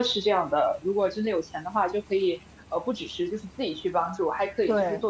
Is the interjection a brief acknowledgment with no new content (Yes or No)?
Yes